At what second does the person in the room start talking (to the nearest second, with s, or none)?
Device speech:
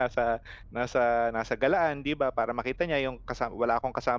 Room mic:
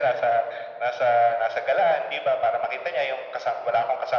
none